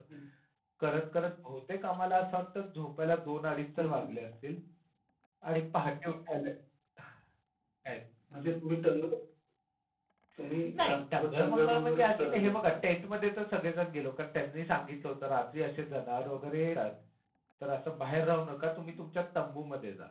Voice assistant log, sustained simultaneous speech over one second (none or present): present